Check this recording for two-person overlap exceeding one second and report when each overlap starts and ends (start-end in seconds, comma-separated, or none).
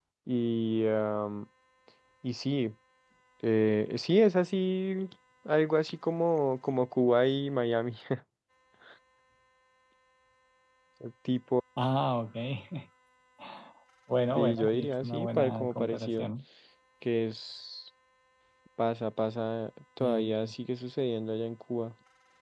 14.3-16.3